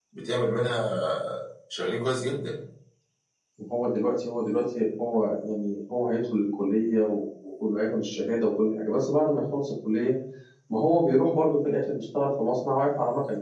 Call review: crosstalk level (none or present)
none